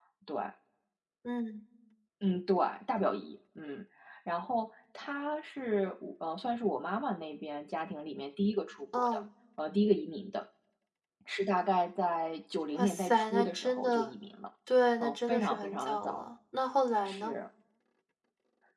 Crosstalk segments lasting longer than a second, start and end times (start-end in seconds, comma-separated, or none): 12.8-14.1, 15.0-16.2